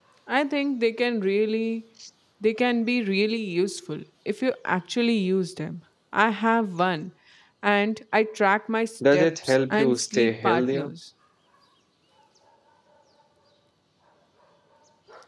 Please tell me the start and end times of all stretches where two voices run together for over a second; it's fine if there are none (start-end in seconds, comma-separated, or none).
9.1-10.9